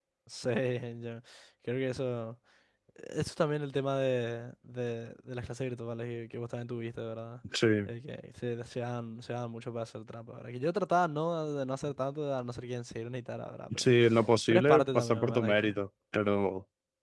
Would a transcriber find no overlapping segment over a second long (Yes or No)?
No